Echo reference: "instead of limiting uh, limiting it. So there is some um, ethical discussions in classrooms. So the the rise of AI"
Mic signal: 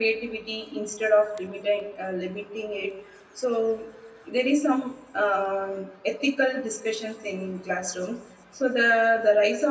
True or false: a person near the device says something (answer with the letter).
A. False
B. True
A